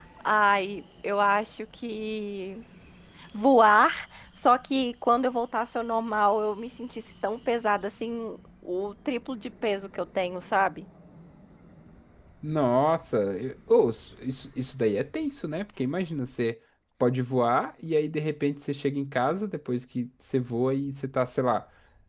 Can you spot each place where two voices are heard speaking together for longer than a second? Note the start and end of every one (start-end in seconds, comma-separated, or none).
none